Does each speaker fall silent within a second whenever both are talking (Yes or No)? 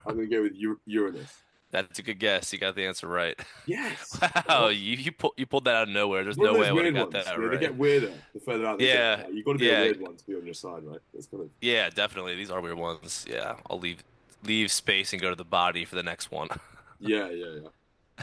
No